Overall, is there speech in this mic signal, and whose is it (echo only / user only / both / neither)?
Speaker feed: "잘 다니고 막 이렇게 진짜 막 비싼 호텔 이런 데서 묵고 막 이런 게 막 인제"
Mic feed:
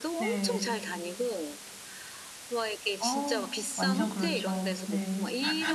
both